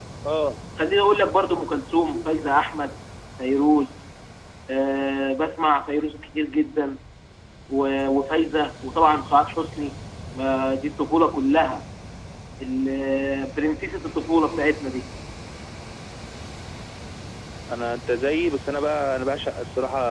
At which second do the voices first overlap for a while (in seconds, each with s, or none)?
none